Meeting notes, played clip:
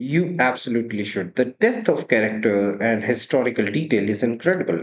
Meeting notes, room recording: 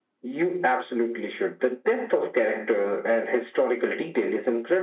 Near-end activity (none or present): none